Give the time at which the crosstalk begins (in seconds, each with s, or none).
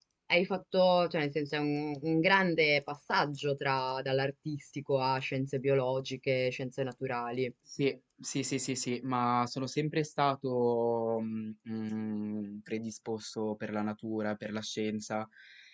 none